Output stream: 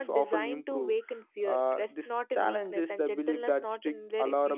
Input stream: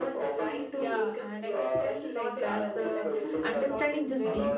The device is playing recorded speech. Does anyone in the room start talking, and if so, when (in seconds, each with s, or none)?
0.7 s